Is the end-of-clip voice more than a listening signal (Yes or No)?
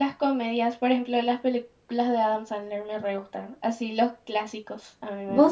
Yes